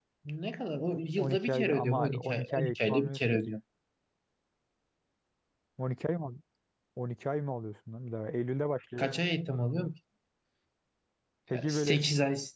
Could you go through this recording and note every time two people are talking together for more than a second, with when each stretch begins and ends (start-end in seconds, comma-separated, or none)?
1.2-3.5